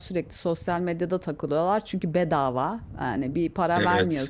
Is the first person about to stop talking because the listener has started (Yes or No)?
No